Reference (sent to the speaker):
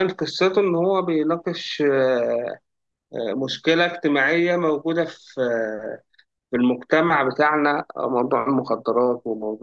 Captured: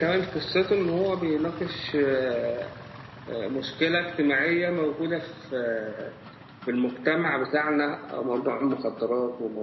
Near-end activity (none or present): none